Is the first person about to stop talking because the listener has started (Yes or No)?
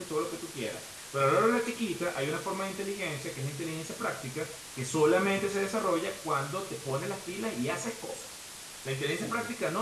No